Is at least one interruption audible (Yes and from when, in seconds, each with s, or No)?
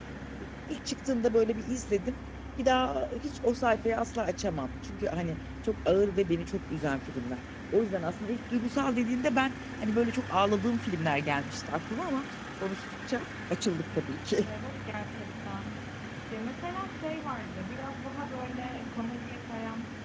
No